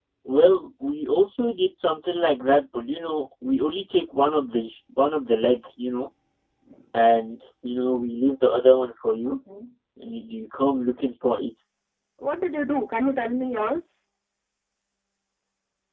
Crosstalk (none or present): none